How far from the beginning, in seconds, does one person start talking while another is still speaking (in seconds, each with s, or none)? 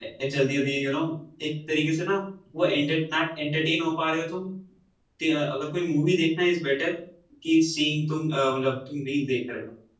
none